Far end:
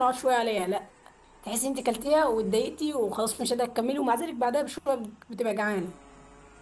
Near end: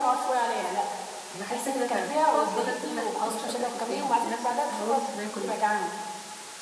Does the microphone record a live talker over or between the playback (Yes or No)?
Yes